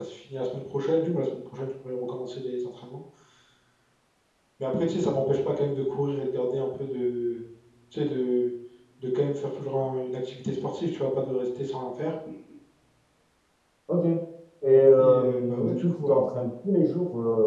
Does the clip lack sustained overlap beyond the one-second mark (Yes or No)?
No